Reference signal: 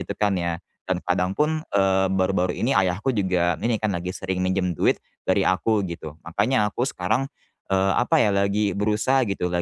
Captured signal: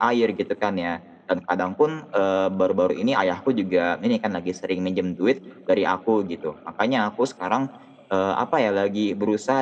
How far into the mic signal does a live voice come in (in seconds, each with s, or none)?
none